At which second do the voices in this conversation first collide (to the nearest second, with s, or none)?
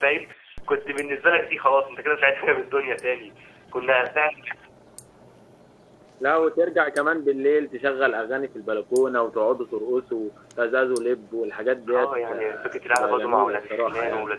12 s